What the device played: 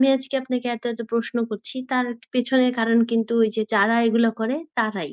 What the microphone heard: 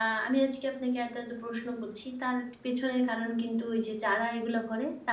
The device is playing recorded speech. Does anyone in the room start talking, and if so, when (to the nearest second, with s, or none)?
none